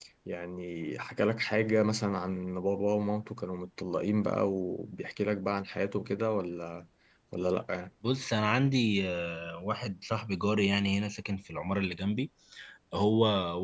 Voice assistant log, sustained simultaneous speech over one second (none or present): none